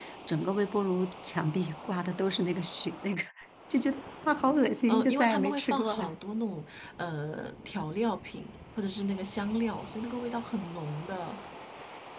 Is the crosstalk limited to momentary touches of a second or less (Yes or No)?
No